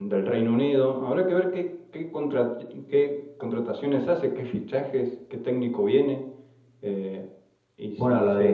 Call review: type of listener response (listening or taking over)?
taking over